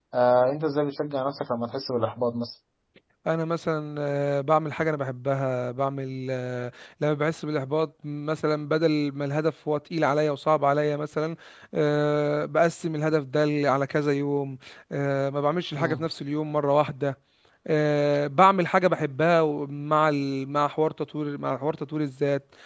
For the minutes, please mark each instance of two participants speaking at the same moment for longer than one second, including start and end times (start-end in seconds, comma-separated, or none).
none